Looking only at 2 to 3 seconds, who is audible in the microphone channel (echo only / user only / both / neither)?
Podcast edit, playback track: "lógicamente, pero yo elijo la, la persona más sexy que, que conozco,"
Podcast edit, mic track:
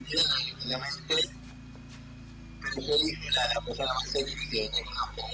echo only